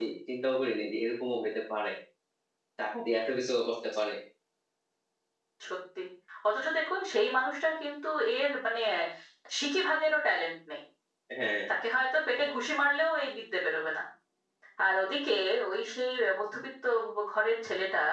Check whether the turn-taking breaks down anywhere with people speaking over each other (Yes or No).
No